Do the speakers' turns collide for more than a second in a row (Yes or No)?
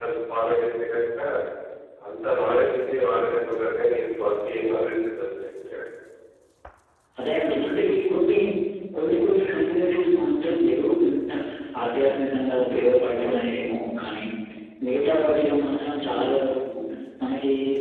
No